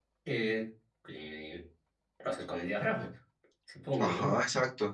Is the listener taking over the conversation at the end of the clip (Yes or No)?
Yes